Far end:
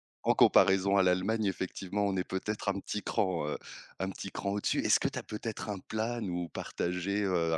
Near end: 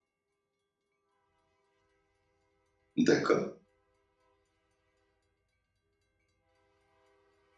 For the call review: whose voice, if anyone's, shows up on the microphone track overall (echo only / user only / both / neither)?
user only